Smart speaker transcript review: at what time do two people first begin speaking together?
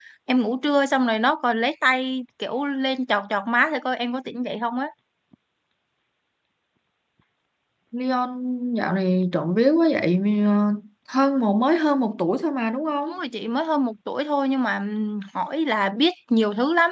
none

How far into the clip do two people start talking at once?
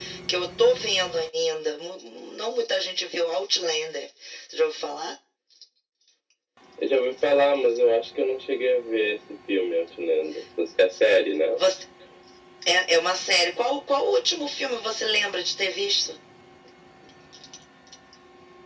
none

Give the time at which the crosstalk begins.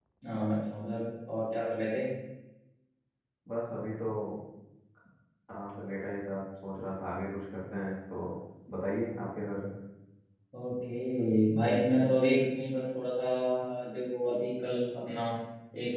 none

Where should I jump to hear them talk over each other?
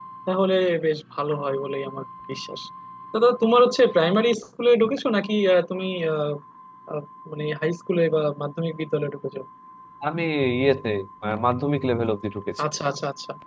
none

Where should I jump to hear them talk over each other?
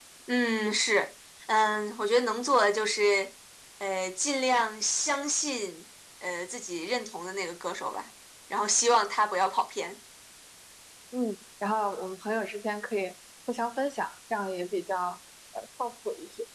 none

